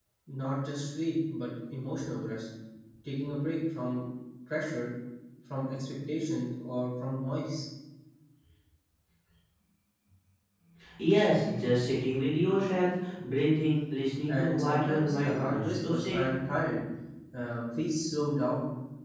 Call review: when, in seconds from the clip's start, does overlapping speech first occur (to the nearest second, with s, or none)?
14 s